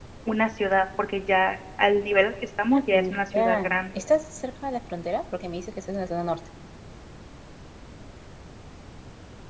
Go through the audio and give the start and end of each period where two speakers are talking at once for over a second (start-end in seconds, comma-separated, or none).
2.7-4.0